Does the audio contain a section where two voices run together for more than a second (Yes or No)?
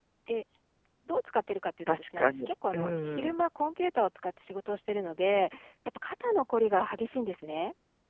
Yes